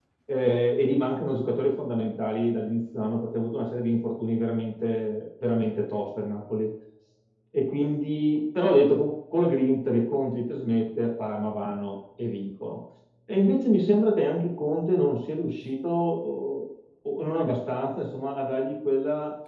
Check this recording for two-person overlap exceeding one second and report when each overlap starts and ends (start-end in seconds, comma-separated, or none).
none